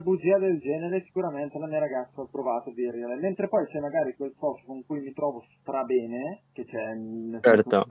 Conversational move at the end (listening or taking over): listening